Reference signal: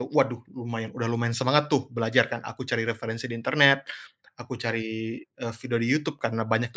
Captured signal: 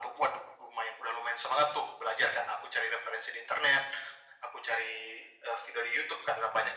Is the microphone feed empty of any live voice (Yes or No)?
Yes